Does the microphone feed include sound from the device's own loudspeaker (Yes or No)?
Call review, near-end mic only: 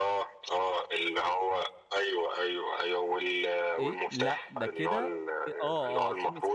Yes